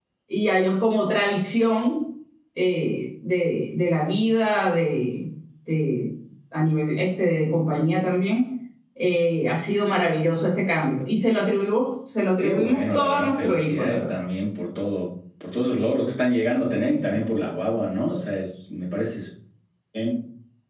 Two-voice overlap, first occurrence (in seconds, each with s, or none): 12.4 s